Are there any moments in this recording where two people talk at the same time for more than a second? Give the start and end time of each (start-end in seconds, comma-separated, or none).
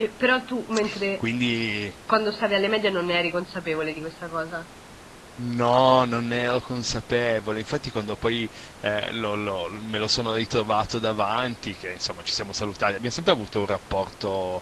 none